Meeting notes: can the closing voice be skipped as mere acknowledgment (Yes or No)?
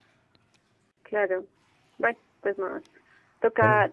Yes